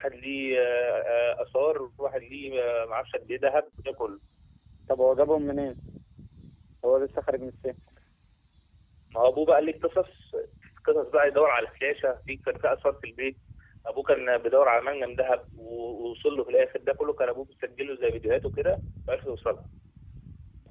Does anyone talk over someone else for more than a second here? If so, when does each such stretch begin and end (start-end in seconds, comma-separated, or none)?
none